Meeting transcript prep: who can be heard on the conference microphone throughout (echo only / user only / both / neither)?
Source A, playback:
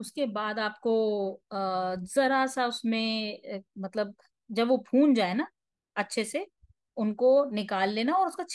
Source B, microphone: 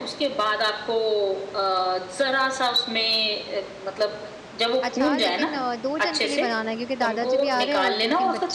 both